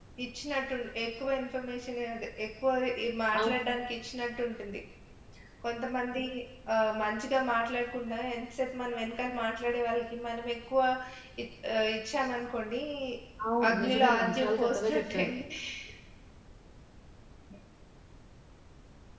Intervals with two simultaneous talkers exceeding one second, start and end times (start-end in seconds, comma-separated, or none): 13.7-15.2